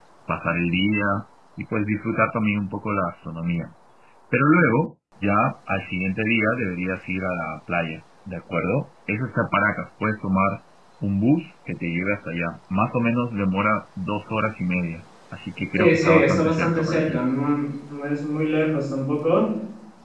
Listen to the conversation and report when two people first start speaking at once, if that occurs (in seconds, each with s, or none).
15.8 s